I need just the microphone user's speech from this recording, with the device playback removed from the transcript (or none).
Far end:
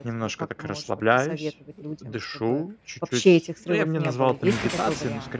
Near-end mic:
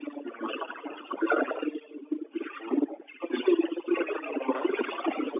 Да.